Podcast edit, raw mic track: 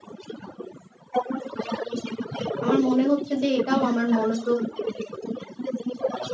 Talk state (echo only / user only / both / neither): both